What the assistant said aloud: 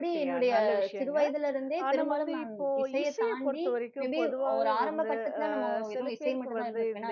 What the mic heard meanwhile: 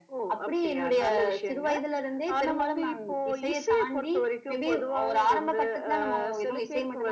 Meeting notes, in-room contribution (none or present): none